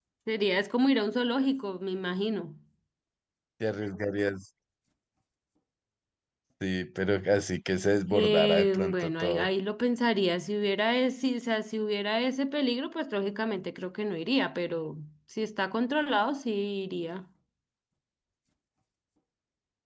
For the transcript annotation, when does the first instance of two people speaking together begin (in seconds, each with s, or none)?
8.1 s